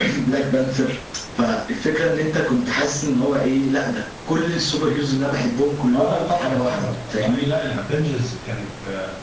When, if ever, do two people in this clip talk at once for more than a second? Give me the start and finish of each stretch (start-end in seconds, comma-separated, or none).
5.9-7.5